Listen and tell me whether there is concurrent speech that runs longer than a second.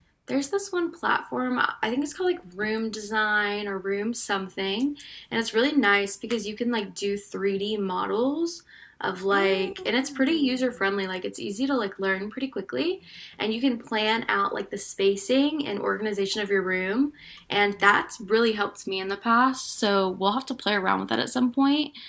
Yes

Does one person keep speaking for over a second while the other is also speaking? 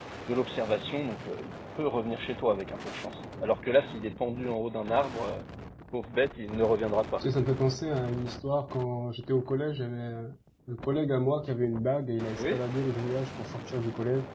No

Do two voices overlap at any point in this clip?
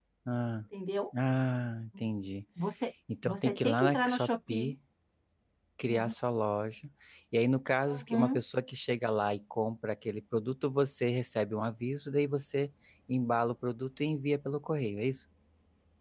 Yes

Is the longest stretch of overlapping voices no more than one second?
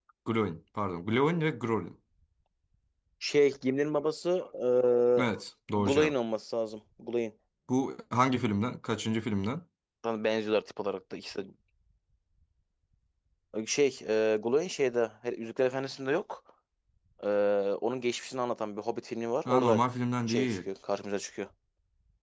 Yes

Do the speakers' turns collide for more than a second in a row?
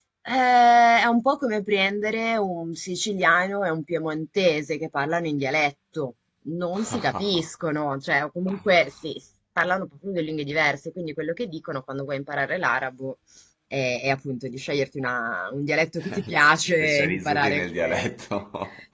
Yes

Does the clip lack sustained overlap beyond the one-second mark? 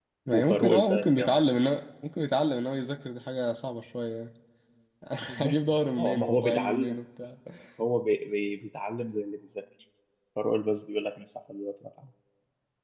No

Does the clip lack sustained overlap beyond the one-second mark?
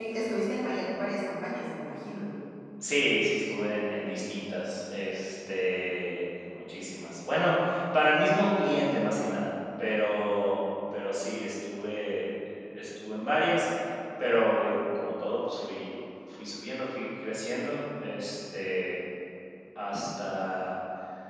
Yes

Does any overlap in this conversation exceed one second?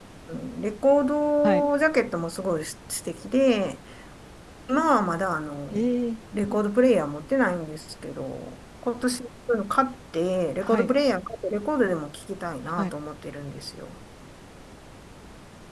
No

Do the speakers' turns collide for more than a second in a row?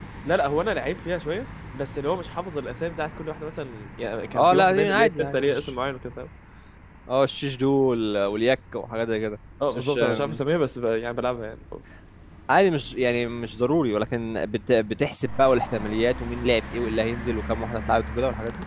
Yes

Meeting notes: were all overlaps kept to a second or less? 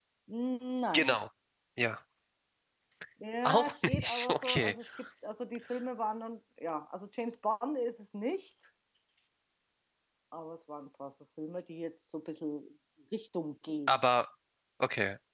No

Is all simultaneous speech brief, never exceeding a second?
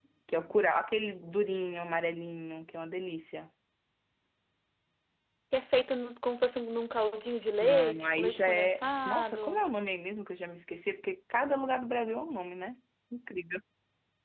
No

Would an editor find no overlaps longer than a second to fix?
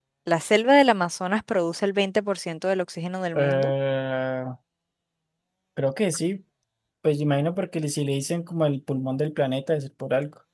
Yes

